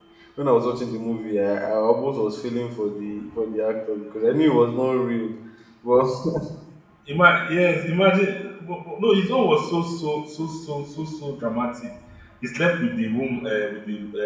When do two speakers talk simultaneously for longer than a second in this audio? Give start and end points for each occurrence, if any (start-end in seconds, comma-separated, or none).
none